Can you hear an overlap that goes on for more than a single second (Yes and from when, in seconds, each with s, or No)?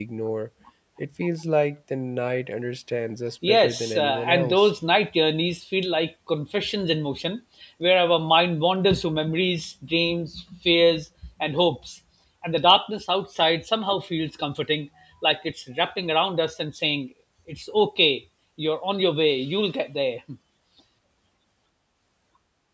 Yes, from 3.4 s